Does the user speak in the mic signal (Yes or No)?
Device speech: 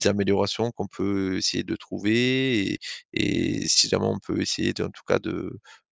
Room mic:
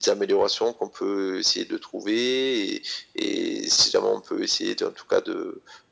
No